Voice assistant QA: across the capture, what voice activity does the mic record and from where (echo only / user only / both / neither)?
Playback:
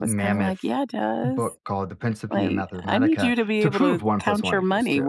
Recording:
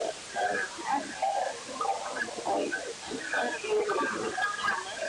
echo only